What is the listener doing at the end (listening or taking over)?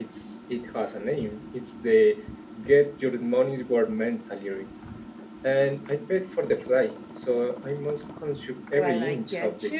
taking over